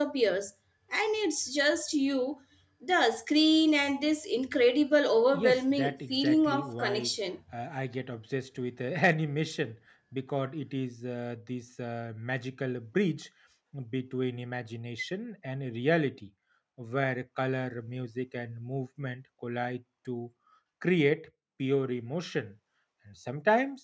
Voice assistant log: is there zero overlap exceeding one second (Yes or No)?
No